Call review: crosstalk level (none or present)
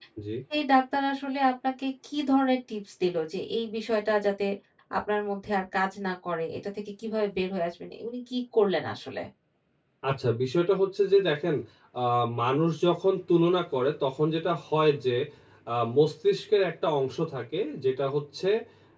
none